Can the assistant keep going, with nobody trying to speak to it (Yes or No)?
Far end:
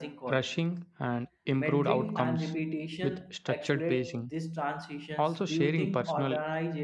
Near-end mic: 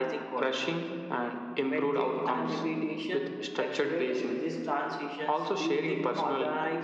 Yes